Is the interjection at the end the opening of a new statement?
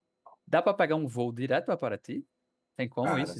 Yes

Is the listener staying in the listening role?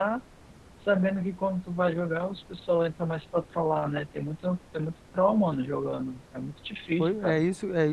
No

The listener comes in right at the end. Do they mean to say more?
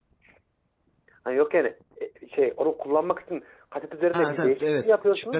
Yes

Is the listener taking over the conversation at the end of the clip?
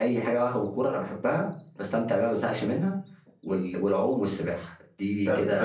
Yes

